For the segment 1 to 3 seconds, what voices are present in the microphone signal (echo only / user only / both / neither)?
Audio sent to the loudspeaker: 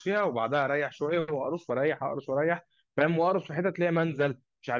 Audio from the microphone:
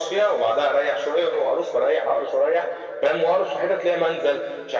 echo only